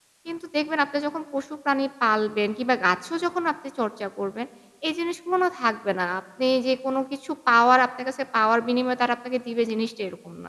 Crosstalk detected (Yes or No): No